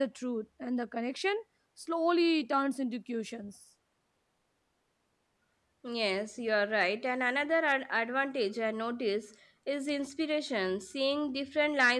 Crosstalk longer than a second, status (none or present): none